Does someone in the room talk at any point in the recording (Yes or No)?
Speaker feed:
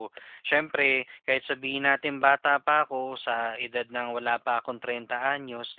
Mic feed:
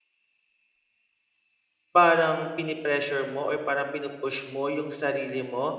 Yes